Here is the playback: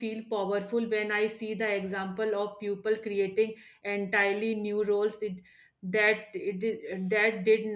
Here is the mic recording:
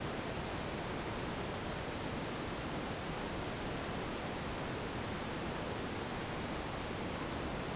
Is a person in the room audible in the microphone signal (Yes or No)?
No